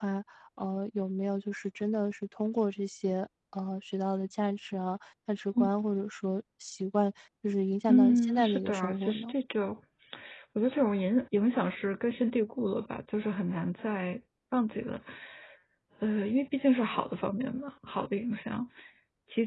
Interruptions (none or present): present